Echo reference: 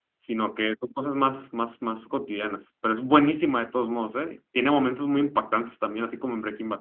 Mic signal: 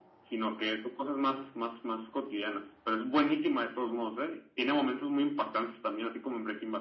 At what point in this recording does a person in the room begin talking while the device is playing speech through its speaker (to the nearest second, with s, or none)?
none